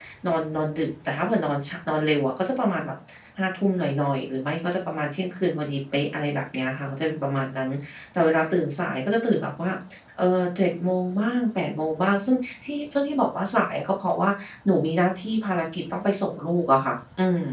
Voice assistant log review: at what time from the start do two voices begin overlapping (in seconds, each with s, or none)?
none